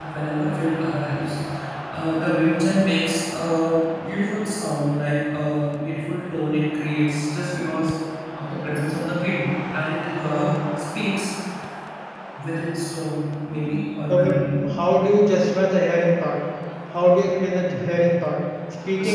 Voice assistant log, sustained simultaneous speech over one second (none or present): none